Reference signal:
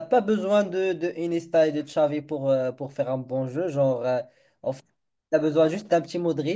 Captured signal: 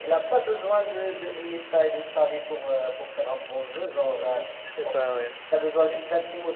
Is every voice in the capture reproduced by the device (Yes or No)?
No